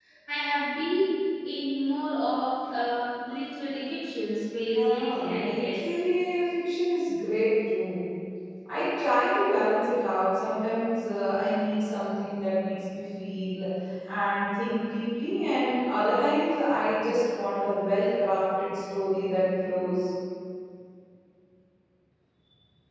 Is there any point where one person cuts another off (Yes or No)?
Yes